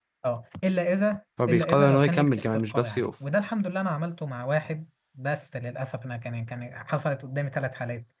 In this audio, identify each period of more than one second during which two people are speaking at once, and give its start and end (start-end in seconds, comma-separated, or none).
1.5-3.1